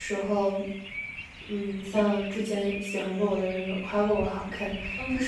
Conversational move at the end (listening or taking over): listening